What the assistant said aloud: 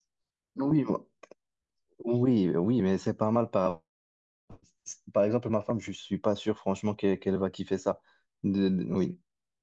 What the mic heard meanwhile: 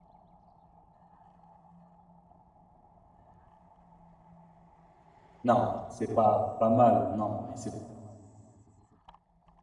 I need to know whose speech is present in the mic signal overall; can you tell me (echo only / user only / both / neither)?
user only